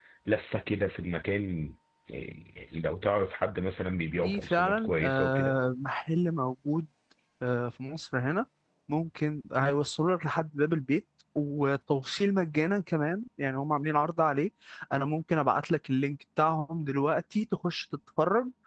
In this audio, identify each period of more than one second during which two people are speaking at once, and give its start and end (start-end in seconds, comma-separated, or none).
4.2-5.6